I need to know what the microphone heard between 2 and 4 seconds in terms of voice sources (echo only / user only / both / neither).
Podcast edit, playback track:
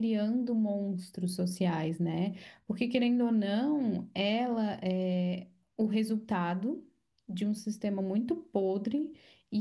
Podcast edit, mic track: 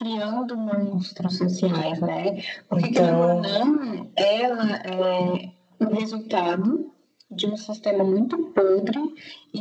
both